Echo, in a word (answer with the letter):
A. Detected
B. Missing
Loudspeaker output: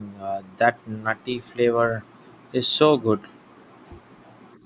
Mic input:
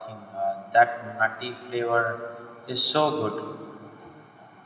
A